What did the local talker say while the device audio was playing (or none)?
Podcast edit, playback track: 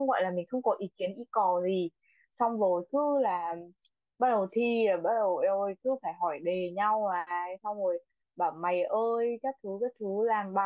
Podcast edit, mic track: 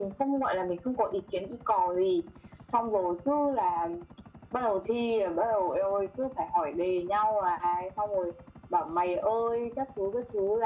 none